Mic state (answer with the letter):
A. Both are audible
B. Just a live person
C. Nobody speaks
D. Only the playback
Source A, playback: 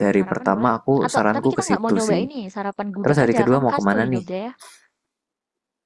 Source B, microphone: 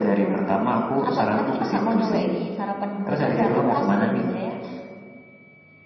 D